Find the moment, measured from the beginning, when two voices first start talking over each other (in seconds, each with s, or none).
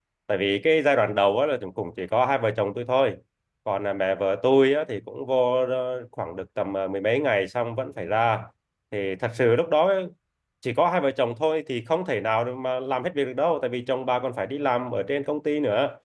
none